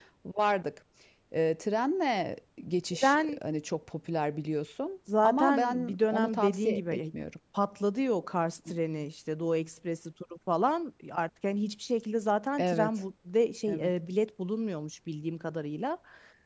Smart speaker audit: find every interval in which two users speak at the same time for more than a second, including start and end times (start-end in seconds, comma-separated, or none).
5.2-7.0